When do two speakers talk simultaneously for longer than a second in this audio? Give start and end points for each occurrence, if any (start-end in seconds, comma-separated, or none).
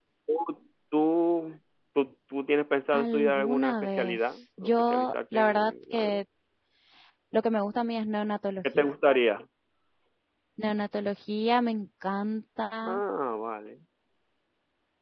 2.9-6.2